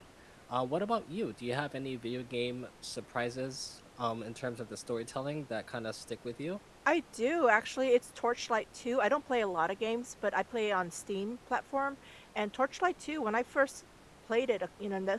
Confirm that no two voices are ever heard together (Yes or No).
Yes